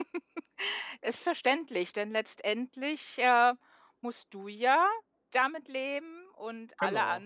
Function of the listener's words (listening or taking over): listening